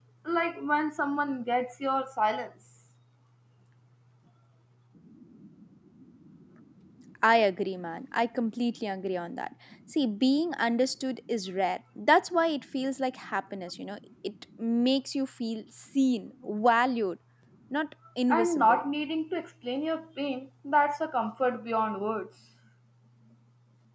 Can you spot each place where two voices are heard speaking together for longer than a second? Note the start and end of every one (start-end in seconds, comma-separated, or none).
none